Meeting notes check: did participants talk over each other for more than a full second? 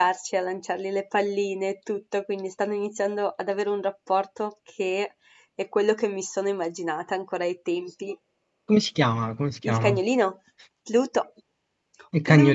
No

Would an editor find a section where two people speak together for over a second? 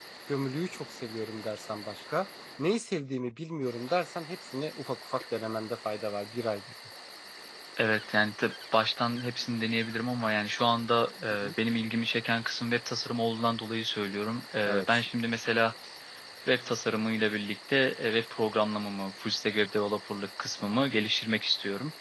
No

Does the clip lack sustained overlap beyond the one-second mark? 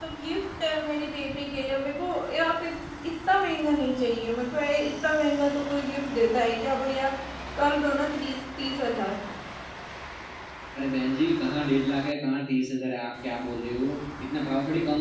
Yes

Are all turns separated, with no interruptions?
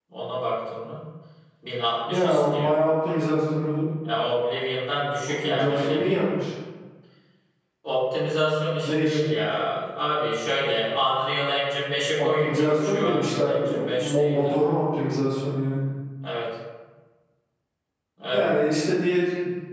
No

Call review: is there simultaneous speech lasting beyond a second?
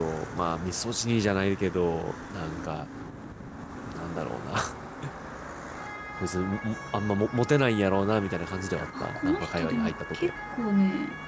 Yes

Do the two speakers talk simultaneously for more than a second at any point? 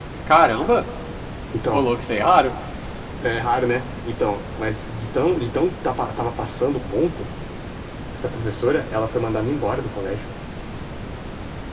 No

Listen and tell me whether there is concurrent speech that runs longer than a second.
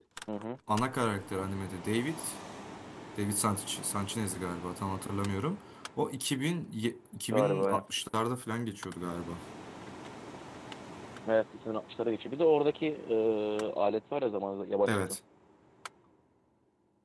No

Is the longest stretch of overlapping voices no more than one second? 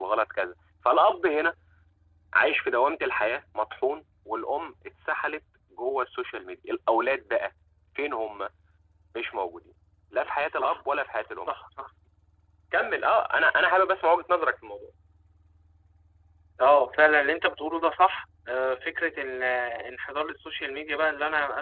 Yes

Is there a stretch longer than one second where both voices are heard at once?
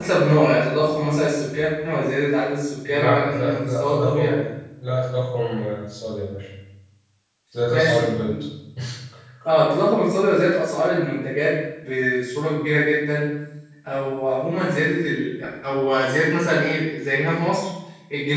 Yes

